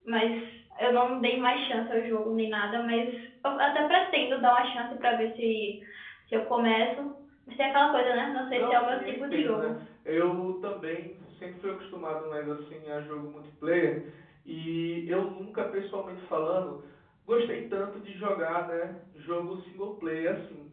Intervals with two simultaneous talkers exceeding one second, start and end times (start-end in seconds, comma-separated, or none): 8.5-9.7